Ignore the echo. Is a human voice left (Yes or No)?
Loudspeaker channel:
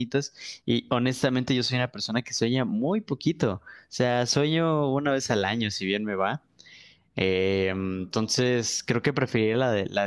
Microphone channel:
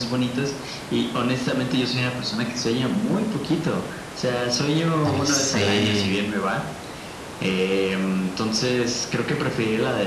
Yes